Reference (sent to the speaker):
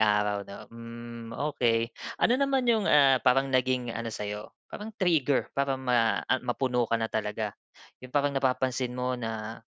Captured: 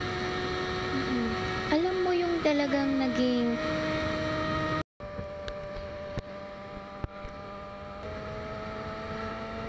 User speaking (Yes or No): Yes